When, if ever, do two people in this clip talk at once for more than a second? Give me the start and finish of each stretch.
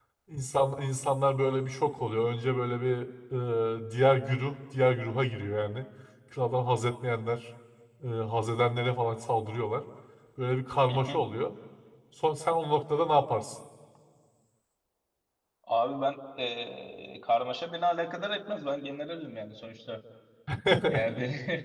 none

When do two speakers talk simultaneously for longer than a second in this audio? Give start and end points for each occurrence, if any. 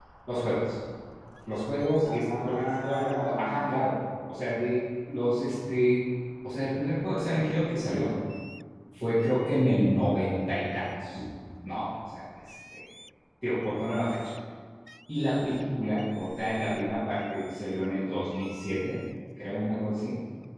2.0-3.6

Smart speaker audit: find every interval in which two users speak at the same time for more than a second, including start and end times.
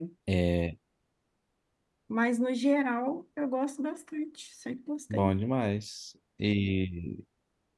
none

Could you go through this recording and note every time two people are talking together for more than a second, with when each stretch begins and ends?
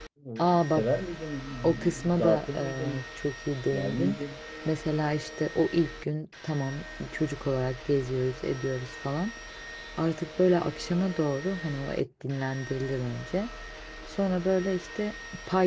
1.6-3.0

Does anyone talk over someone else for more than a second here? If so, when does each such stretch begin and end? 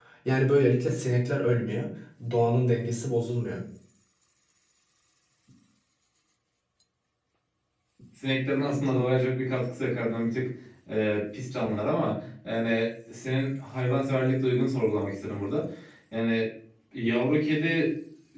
none

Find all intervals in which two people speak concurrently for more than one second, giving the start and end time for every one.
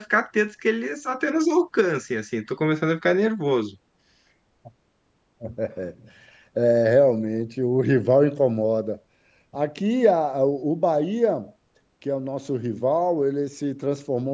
none

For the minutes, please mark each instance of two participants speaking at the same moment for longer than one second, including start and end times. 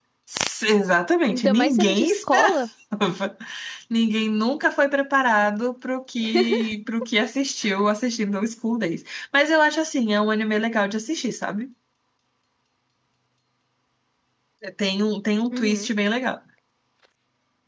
1.3-2.6

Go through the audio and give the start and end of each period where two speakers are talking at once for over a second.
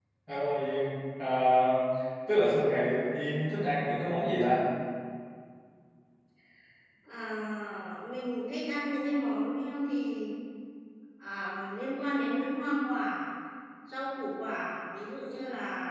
none

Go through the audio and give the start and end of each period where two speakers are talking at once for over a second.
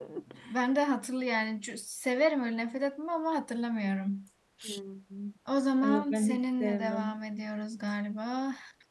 5.8-7.2

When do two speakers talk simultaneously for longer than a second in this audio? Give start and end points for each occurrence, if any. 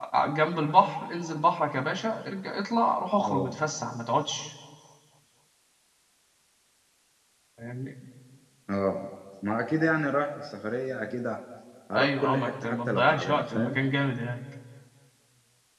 12.0-13.8

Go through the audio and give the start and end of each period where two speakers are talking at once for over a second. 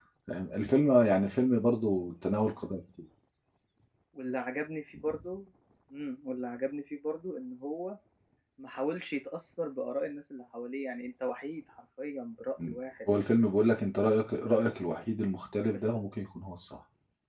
none

